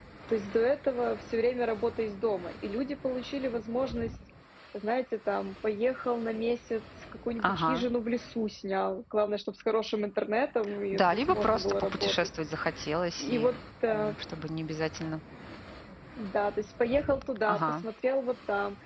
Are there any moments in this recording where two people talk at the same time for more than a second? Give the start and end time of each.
10.9-12.1

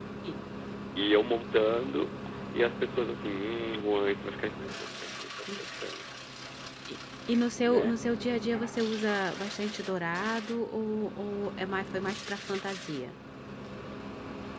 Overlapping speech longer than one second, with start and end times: none

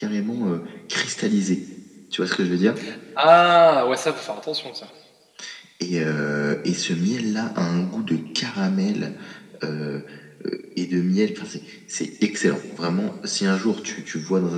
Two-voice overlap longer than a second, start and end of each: none

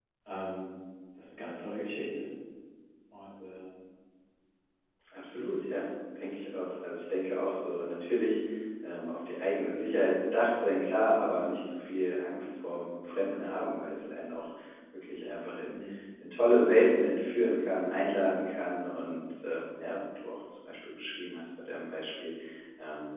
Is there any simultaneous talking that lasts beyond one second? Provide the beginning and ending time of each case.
none

